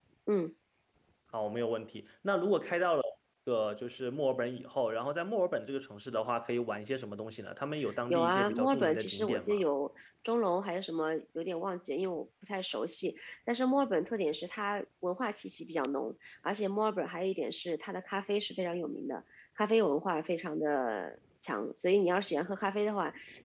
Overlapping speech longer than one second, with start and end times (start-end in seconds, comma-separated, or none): 8.1-9.6